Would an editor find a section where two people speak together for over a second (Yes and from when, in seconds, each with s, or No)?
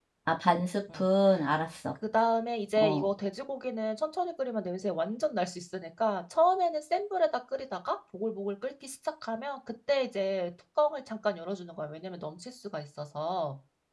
No